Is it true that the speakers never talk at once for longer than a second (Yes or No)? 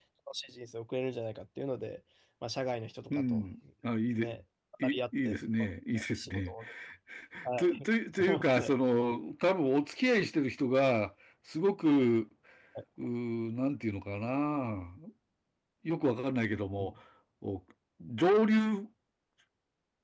No